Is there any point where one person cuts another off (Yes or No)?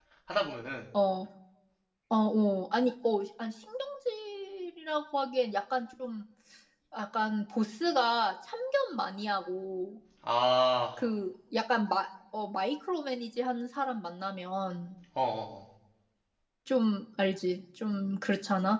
No